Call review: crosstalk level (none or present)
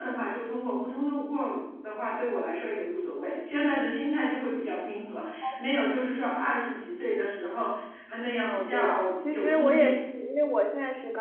present